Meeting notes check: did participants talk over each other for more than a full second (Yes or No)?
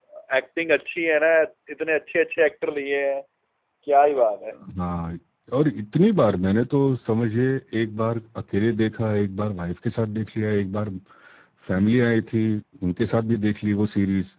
No